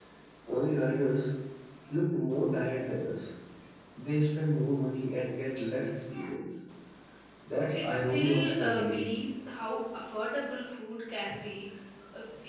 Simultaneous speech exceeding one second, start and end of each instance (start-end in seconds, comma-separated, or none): 7.7-9.1